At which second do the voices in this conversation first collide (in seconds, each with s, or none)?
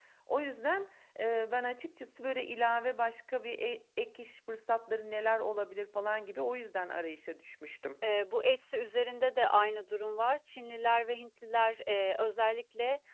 none